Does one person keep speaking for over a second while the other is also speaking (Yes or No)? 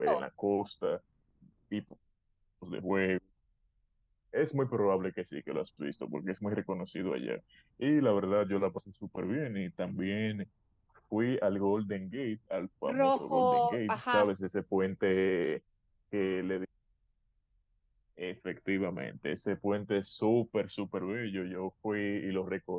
Yes